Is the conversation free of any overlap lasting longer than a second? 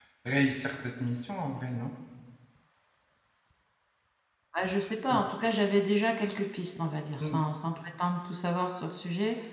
Yes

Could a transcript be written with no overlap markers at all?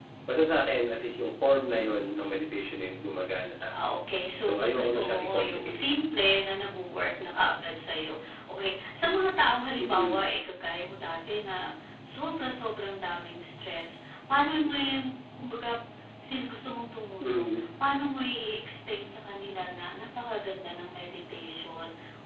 No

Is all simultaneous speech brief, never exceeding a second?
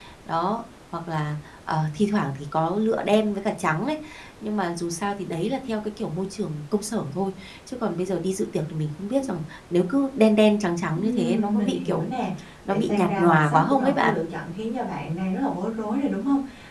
No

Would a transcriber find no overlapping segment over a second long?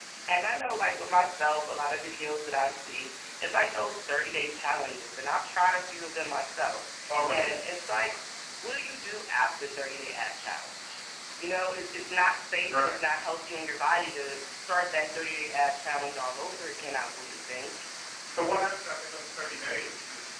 Yes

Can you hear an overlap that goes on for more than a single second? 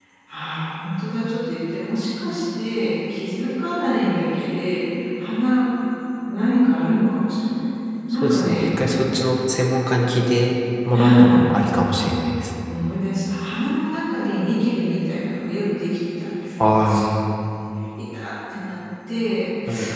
No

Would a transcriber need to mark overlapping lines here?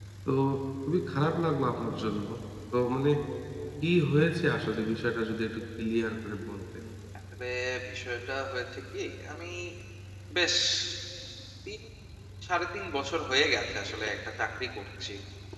No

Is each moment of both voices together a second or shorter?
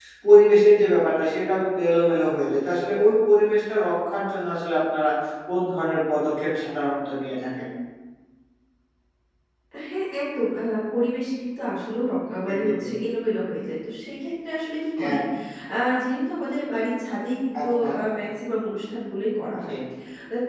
Yes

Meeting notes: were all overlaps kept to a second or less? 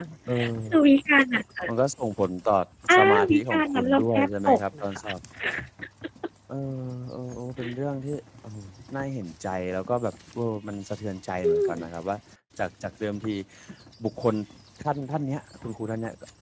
No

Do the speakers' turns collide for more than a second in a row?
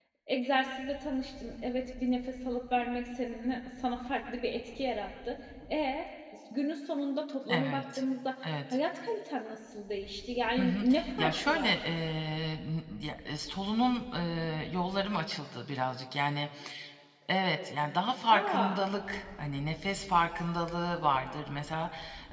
Yes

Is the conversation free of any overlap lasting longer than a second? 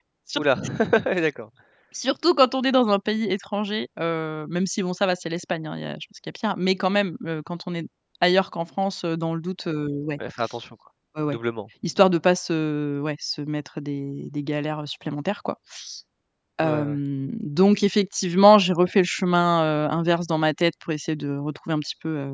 Yes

